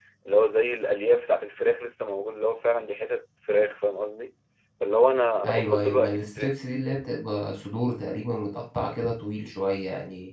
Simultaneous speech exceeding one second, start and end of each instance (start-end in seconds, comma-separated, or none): 5.4-6.8